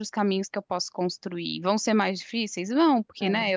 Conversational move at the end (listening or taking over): listening